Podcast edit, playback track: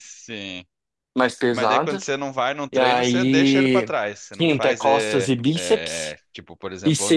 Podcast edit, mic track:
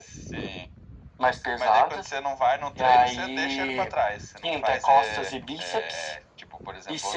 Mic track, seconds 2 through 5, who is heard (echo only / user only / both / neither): echo only